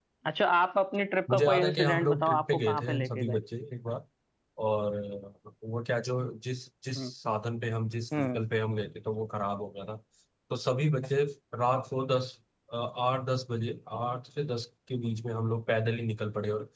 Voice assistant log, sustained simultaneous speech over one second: present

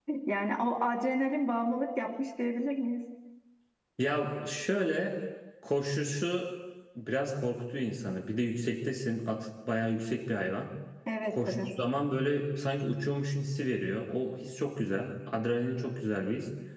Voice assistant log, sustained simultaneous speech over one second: none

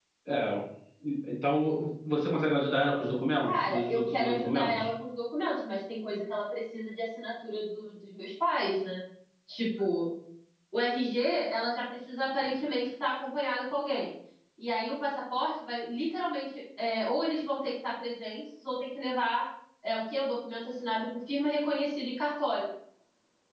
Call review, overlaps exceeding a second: present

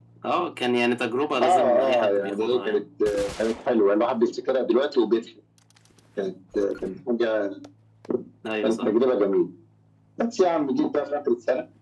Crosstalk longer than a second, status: present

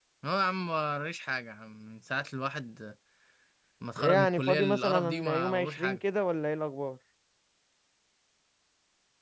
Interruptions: present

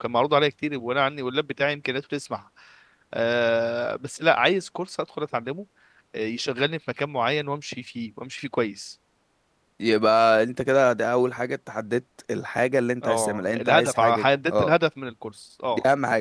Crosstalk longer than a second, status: present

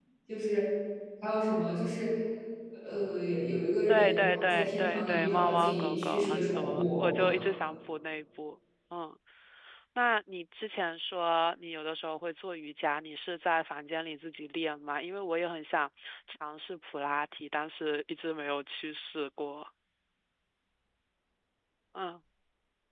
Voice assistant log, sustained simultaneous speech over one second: present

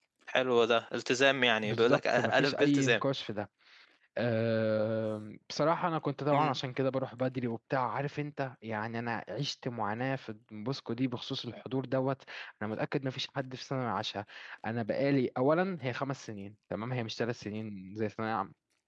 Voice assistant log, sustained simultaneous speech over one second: present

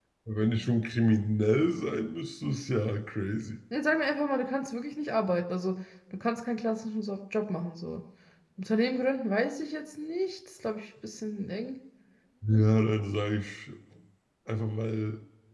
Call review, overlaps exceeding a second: none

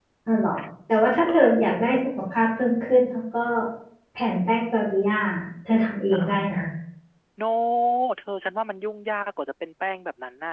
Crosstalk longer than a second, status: none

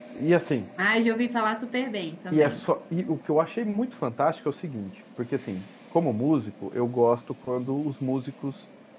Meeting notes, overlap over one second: none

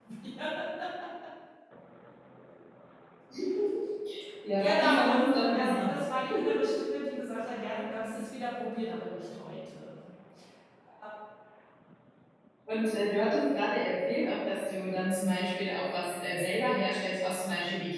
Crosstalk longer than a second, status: present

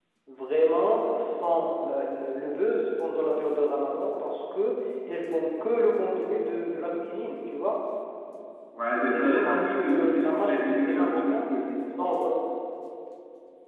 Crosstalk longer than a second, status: present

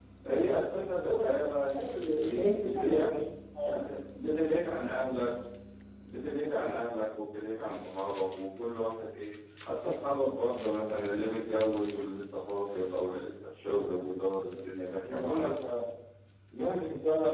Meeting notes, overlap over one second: present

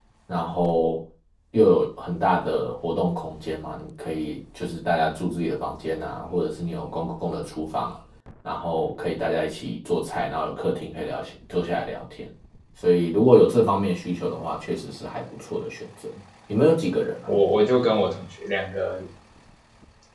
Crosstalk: none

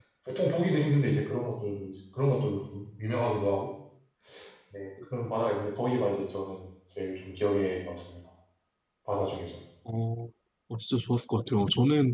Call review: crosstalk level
none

